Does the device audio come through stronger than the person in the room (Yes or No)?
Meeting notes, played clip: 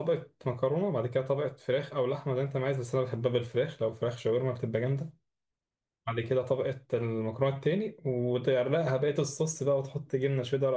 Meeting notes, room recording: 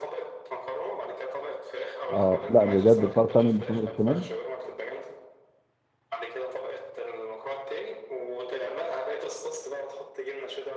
No